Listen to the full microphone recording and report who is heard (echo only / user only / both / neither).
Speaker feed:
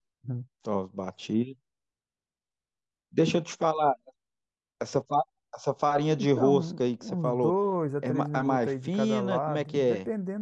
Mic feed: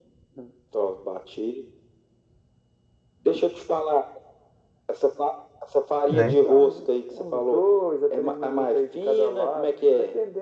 both